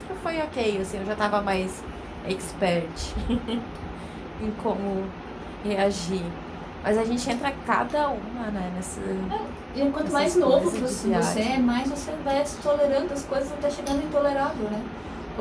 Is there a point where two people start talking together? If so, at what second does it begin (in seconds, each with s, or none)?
10.0 s